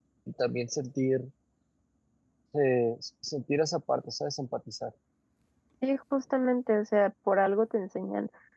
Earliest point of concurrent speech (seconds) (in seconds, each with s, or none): none